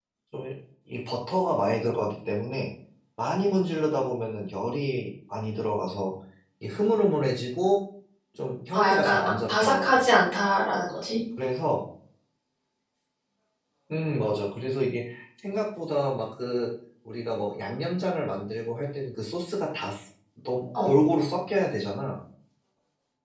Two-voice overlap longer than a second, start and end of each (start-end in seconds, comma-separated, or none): 8.7-10.0